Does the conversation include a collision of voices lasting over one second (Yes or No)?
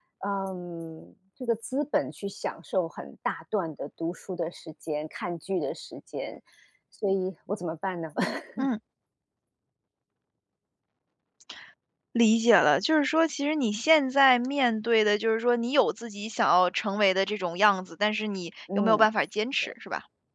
No